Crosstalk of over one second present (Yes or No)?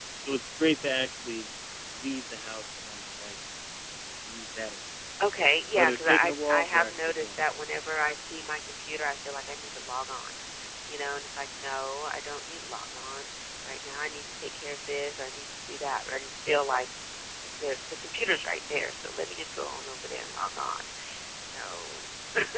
Yes